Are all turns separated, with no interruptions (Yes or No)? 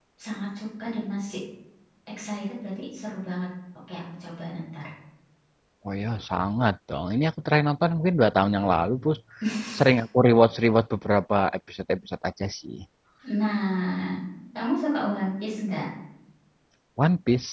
Yes